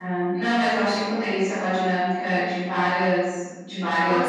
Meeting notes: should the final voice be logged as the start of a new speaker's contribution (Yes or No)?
Yes